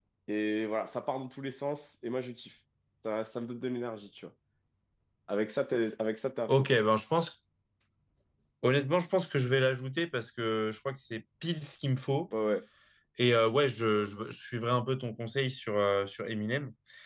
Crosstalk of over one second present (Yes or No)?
No